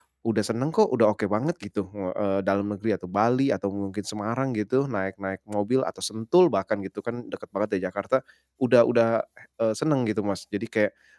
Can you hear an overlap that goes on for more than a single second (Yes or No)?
No